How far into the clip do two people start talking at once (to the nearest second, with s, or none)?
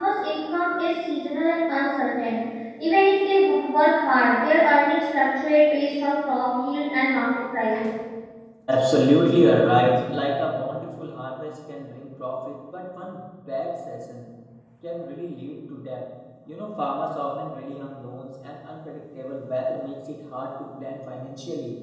none